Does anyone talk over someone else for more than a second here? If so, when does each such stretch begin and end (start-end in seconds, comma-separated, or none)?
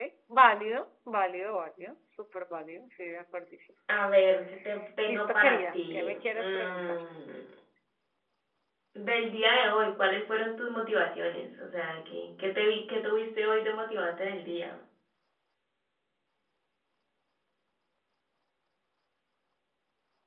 5.0-7.0